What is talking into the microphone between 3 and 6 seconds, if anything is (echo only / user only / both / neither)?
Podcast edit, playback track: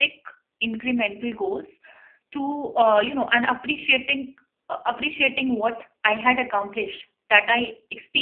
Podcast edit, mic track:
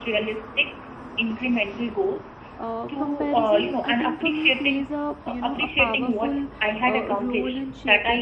both